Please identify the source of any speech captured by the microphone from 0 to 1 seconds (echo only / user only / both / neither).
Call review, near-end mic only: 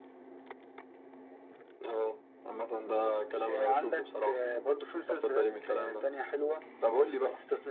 neither